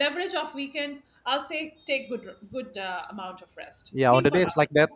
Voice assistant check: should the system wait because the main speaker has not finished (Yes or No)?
No